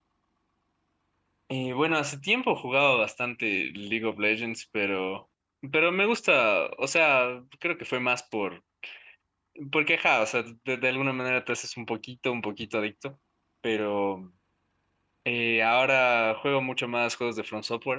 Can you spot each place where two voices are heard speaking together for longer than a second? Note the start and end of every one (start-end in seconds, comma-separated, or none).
none